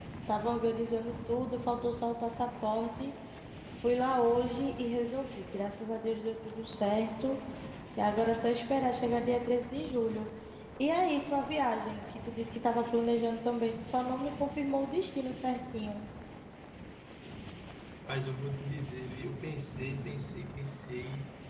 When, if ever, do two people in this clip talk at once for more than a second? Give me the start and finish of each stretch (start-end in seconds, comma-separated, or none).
none